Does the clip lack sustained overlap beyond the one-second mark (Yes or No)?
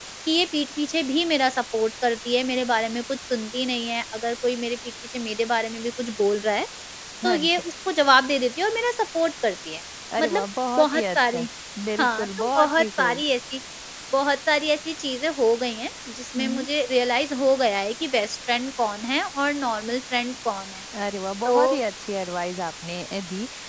No